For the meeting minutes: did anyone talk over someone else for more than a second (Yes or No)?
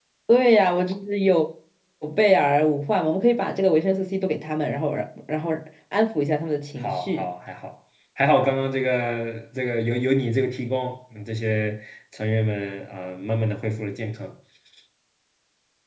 No